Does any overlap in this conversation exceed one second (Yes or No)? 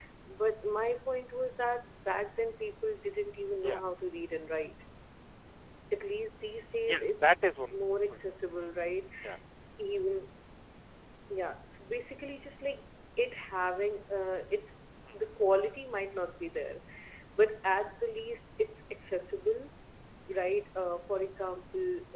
No